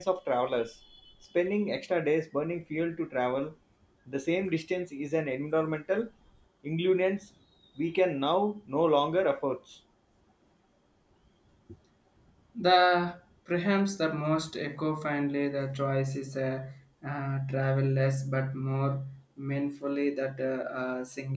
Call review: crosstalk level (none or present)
none